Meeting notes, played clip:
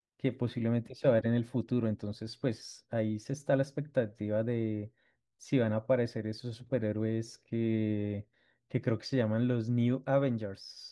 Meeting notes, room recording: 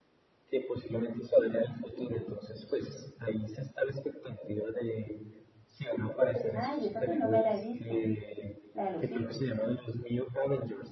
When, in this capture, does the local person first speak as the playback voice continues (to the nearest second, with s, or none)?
7 s